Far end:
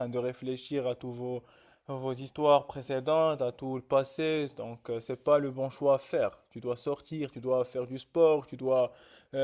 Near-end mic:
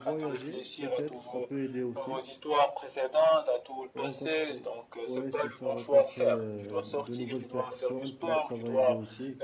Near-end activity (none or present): present